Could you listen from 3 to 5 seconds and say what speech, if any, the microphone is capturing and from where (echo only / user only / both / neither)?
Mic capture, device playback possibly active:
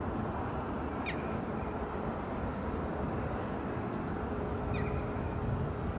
neither